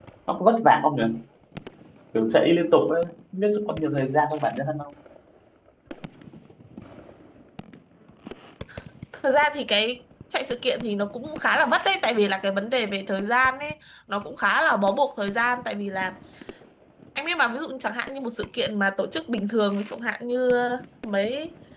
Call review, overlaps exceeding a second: none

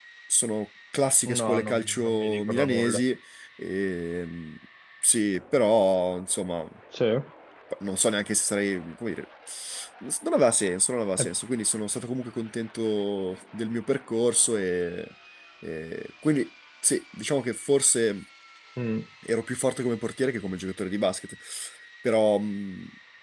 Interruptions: present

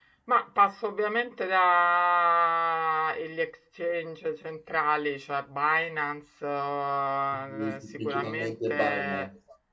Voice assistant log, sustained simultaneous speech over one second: present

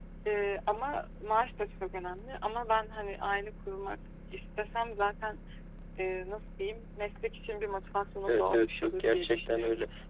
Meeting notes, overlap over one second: present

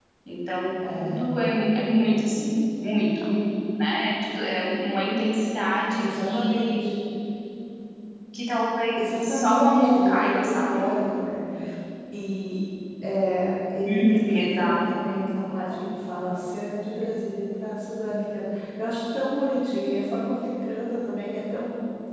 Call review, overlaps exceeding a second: present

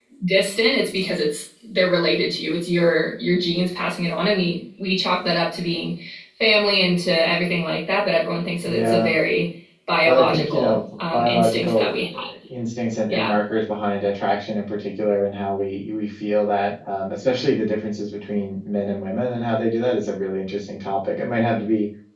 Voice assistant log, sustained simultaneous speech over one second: present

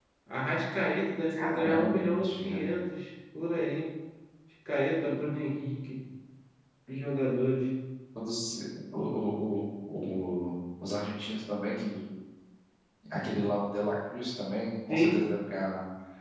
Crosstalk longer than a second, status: present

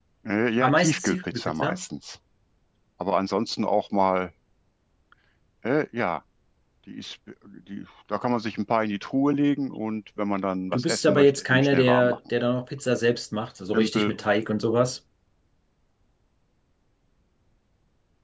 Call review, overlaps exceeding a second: present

